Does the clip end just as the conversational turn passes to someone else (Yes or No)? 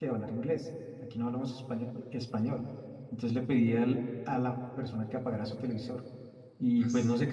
No